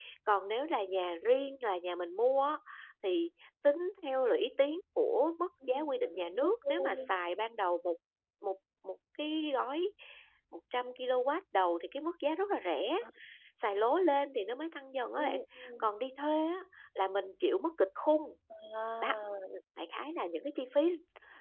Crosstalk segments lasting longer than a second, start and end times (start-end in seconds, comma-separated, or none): 5.7-7.1